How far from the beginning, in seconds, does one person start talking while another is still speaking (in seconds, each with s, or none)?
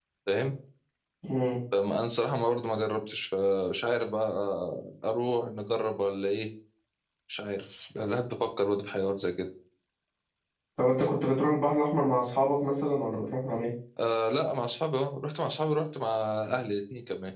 none